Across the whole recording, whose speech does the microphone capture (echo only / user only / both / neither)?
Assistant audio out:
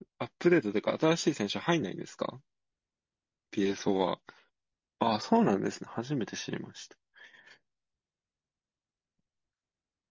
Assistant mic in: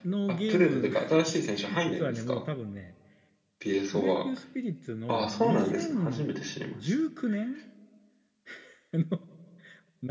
both